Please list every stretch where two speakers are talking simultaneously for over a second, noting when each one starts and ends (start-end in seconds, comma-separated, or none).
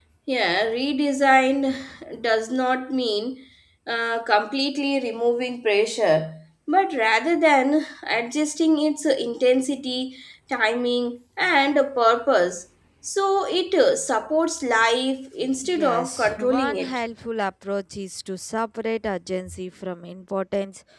15.6-17.0